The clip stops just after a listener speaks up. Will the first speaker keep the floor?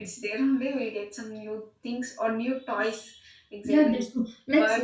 No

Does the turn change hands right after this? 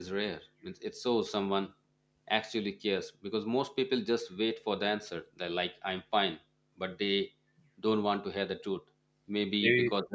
No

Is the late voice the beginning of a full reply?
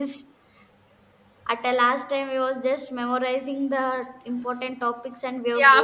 Yes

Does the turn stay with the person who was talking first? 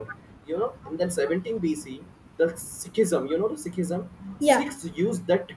Yes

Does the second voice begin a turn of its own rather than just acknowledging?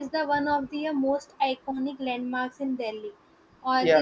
No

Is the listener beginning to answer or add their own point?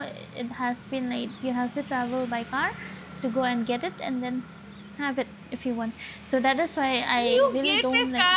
Yes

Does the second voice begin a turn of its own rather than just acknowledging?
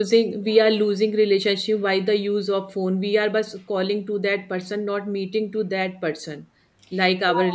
Yes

